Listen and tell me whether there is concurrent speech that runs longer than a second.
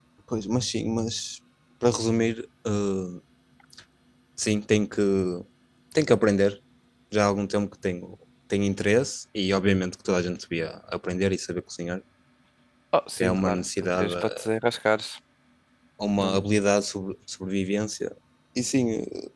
Yes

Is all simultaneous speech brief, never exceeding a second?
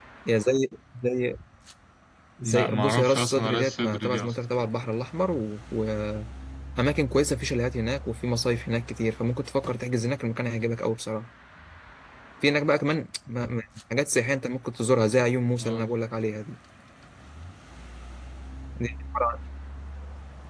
No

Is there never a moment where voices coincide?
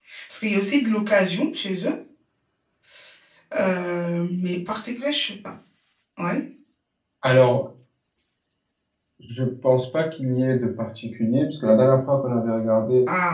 Yes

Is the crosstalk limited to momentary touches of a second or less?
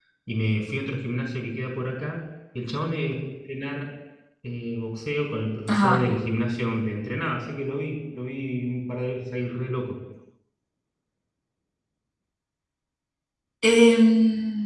Yes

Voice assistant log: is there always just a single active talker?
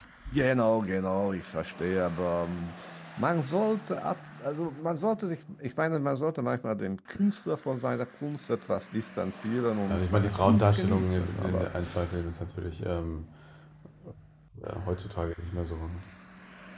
No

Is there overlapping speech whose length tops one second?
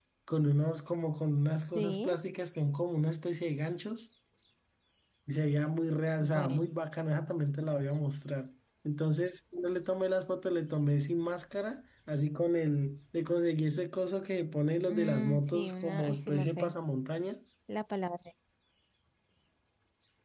Yes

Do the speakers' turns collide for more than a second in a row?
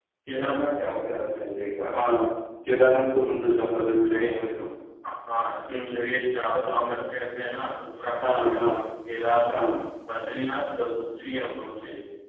No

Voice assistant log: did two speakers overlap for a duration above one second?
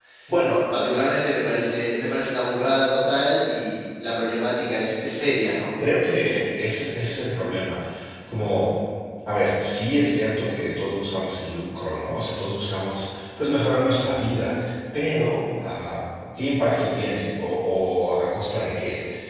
No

